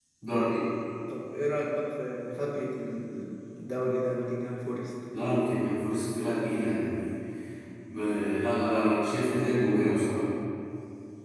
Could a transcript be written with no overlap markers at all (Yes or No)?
Yes